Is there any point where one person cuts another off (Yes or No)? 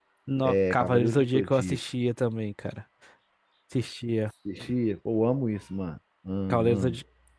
Yes